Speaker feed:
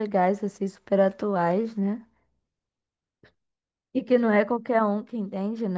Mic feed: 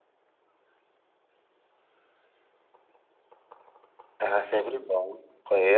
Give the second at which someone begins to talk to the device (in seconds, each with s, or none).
4.2 s